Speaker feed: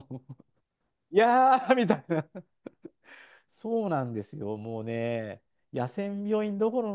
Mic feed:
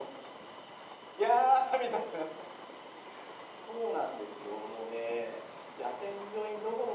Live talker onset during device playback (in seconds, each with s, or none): none